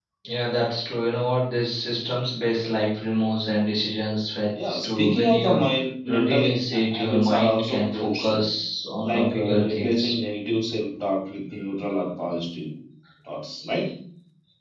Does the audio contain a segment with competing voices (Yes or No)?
Yes